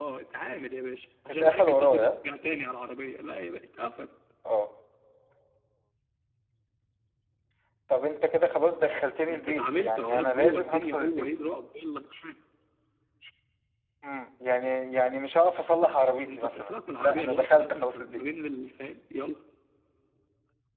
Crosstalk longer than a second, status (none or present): present